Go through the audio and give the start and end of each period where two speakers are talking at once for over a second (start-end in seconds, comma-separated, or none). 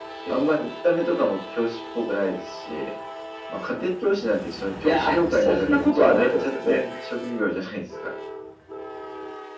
4.8-6.8